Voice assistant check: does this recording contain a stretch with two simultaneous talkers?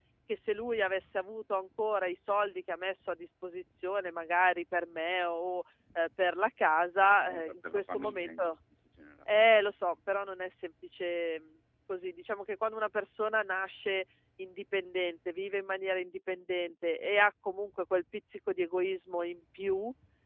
Yes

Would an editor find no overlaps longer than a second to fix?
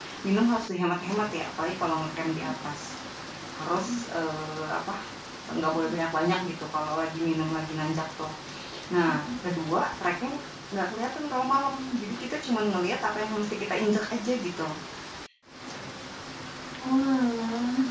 Yes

